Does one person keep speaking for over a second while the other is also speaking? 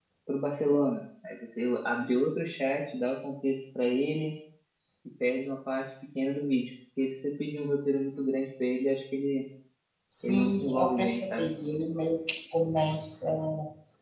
Yes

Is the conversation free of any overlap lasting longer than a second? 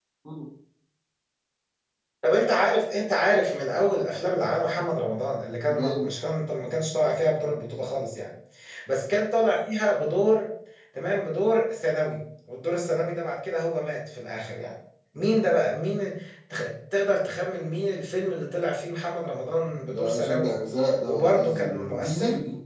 No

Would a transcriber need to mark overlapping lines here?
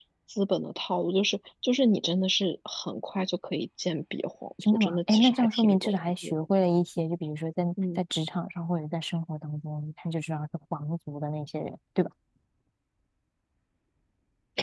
Yes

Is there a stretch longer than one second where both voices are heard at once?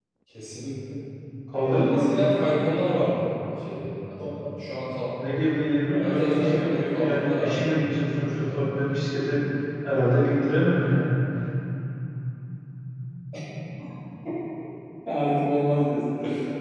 Yes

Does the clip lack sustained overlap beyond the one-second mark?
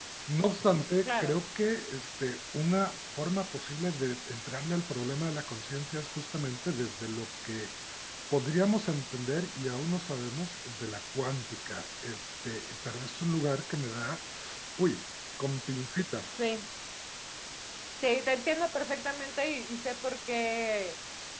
Yes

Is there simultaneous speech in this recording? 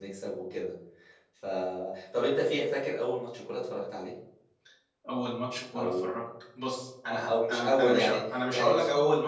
Yes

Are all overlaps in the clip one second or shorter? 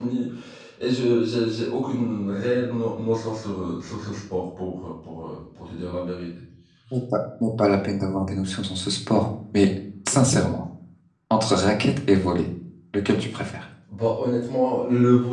Yes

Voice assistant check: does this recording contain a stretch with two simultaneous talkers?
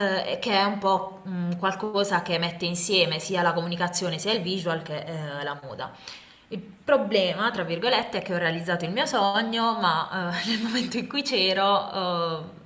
No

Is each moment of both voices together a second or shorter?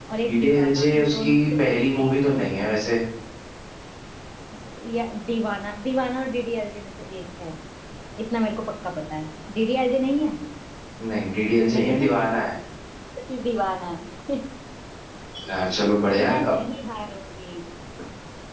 No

